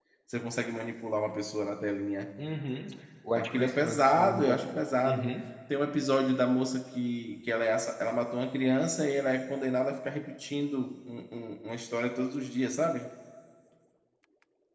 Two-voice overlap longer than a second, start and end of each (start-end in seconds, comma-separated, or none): 3.4-4.7